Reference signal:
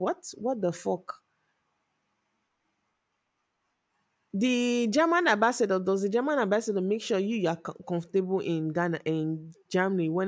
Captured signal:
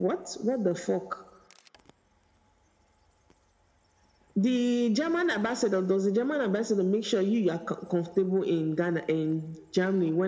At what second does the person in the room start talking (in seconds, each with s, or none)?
none